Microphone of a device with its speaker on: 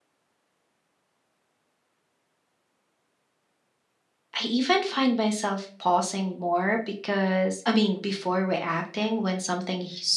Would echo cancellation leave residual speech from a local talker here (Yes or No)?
Yes